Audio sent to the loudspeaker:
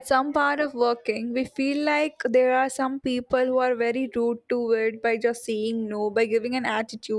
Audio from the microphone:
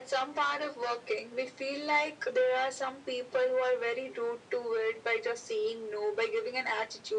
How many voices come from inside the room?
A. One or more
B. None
B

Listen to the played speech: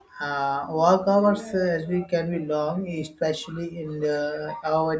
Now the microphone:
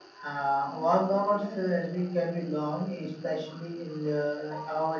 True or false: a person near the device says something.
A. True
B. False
B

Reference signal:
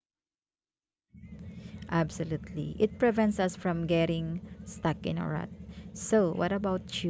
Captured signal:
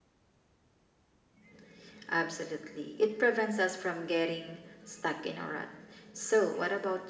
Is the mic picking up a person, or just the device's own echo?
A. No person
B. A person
A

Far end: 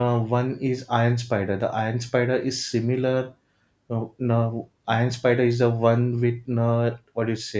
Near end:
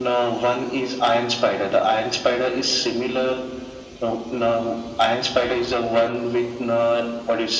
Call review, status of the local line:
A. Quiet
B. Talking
A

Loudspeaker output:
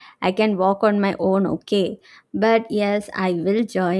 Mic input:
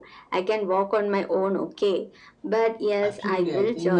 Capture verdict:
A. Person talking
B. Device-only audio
A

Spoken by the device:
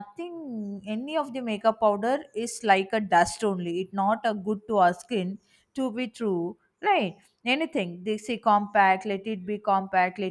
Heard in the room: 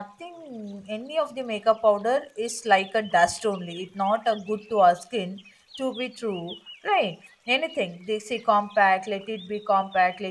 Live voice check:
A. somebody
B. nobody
B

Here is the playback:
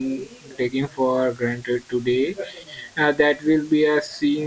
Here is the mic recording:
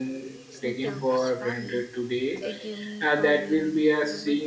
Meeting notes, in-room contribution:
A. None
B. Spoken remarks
B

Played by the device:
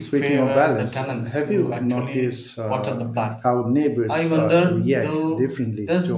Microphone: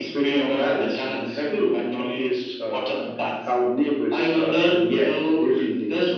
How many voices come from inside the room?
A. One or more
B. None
B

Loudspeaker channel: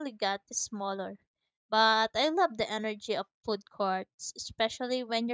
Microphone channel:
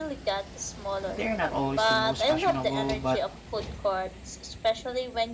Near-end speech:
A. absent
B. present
B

